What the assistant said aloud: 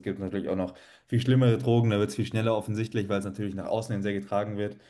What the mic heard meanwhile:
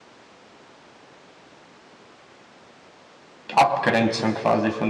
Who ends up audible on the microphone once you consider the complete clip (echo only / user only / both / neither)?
user only